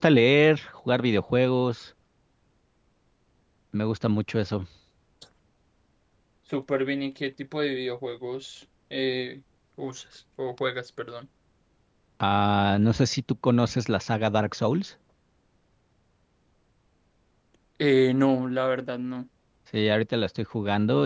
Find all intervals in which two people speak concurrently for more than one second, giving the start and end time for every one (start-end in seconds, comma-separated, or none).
none